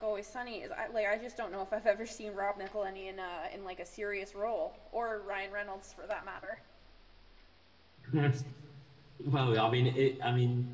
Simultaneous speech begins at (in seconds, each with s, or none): none